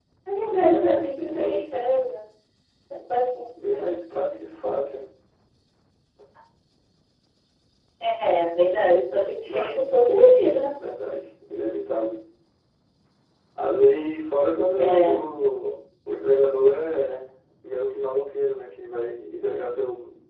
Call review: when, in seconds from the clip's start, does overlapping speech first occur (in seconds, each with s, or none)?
0.6 s